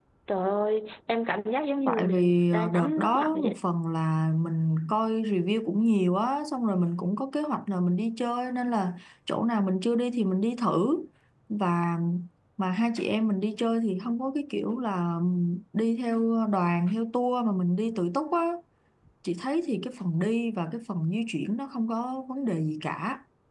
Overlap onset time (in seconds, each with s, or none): 1.9 s